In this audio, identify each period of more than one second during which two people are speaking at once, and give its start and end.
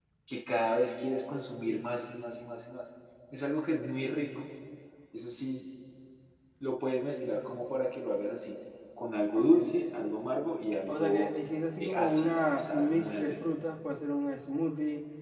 11.8-13.3

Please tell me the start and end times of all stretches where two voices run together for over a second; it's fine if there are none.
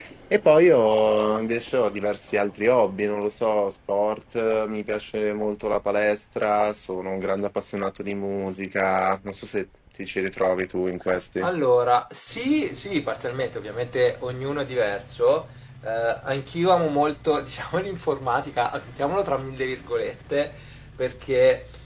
none

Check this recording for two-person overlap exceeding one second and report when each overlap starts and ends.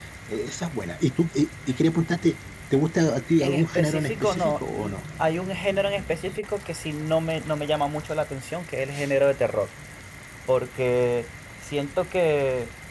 3.4-4.9

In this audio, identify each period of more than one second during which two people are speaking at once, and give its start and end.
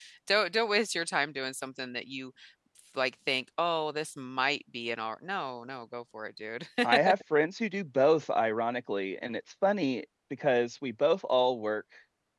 none

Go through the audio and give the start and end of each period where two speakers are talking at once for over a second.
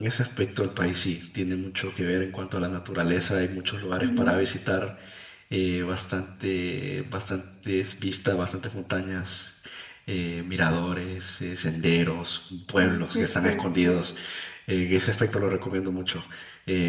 12.8-14.0

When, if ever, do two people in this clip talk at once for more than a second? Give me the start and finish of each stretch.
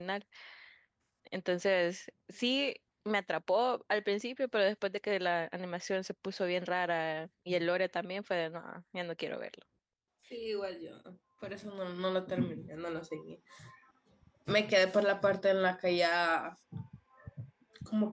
none

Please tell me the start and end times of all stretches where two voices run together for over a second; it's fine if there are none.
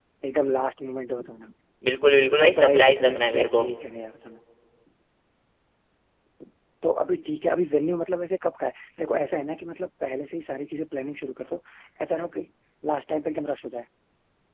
2.4-3.7

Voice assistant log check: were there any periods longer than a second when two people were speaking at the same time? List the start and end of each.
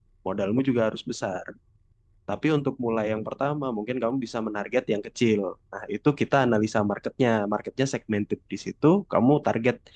none

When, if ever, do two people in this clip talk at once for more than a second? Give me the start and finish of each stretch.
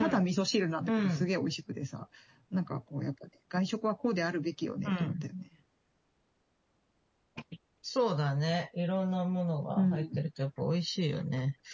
none

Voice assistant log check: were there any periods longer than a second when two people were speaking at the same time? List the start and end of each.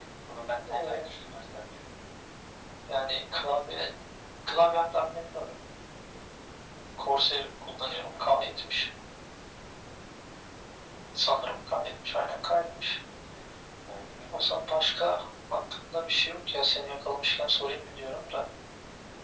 none

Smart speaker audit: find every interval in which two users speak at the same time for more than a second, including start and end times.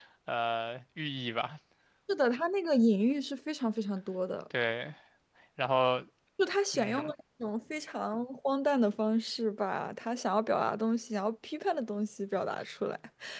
none

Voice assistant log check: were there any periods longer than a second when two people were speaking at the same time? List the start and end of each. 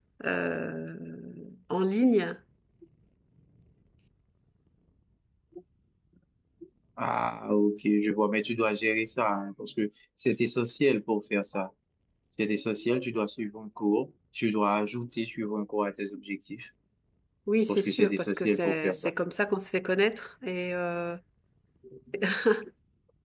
17.7-19.1

